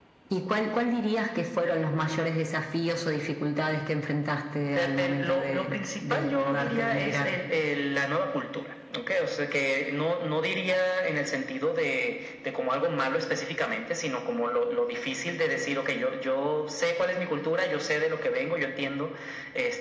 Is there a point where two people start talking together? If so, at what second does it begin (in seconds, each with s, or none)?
4.7 s